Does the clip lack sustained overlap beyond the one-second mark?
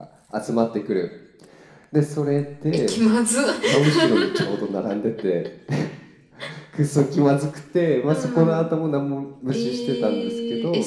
No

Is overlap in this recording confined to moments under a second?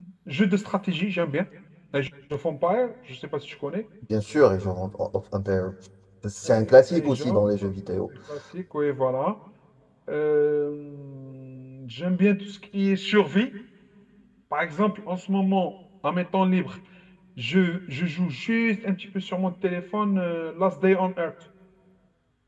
No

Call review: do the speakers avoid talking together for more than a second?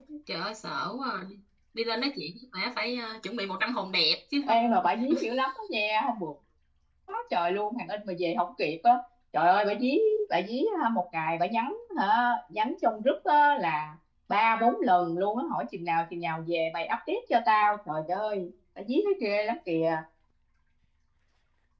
Yes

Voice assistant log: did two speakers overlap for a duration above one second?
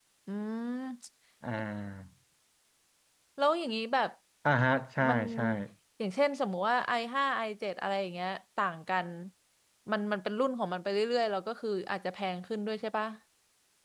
No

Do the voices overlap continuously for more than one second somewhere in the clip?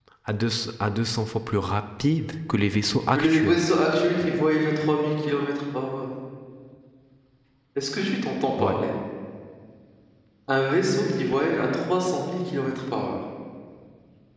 No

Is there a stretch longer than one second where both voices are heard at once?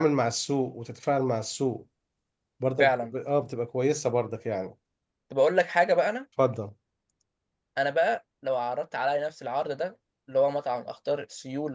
No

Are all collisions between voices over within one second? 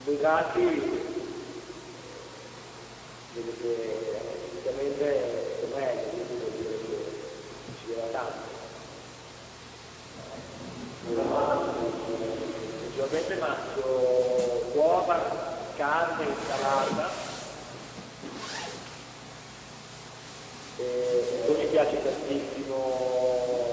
Yes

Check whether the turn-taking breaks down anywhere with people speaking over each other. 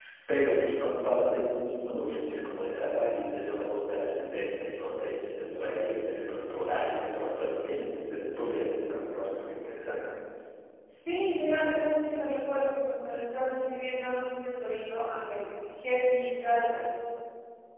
No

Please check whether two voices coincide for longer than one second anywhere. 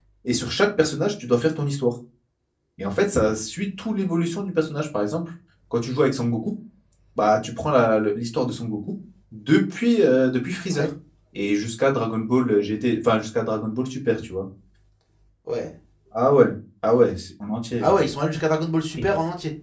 No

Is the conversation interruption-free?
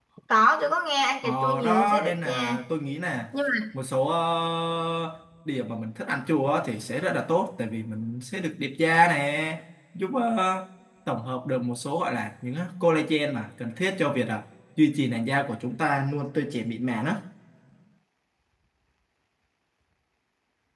No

